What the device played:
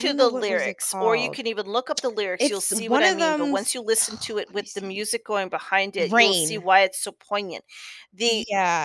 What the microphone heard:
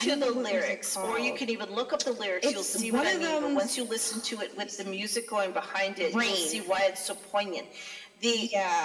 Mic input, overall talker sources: echo only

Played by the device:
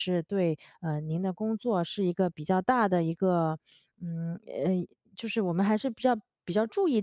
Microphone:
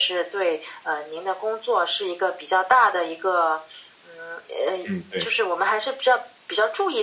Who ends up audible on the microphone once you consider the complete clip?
both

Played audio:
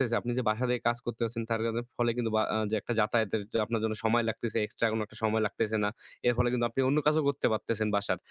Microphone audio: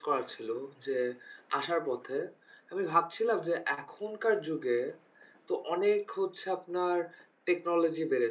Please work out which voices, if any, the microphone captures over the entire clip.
user only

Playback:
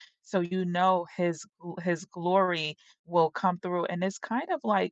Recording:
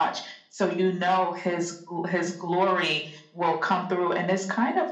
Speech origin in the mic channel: echo only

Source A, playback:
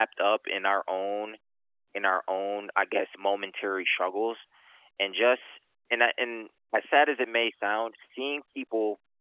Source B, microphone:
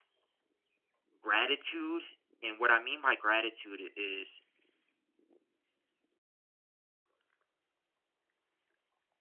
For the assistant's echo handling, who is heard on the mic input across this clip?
user only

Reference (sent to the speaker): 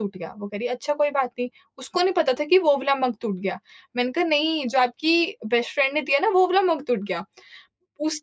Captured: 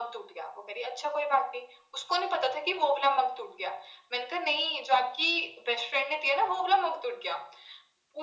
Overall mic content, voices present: echo only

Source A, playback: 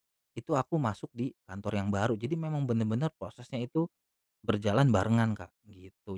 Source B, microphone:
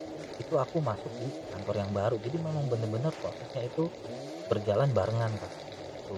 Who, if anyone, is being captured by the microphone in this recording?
echo only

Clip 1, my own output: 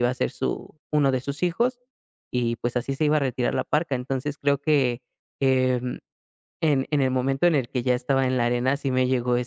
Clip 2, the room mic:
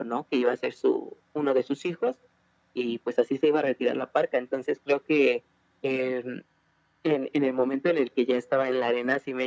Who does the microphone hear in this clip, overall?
echo only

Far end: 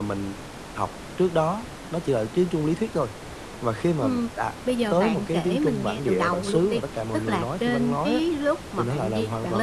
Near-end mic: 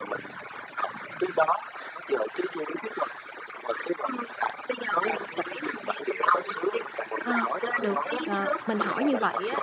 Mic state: both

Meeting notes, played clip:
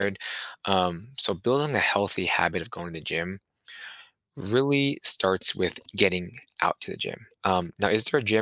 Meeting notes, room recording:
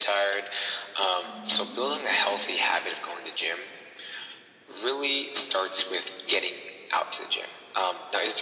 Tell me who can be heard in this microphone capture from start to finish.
both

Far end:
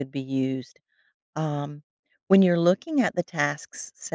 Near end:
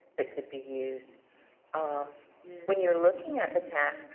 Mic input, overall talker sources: both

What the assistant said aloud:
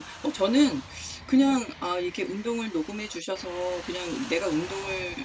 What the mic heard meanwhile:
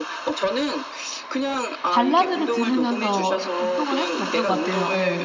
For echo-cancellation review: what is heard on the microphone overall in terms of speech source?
both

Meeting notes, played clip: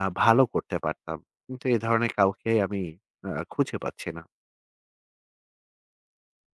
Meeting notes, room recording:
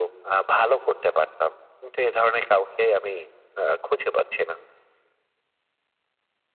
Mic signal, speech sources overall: echo only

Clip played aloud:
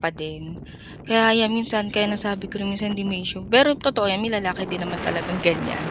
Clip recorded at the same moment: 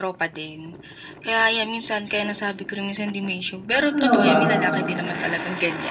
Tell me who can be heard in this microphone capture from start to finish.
both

